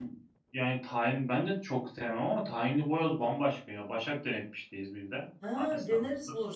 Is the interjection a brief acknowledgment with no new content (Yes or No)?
No